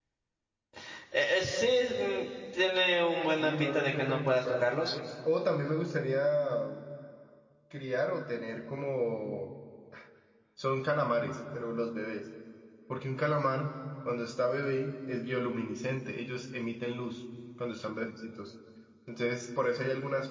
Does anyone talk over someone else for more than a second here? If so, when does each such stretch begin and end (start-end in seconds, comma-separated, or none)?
3.3-4.7